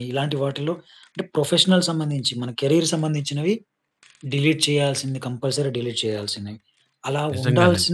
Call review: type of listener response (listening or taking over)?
listening